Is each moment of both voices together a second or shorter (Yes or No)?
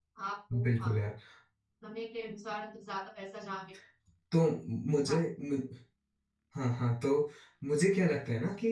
Yes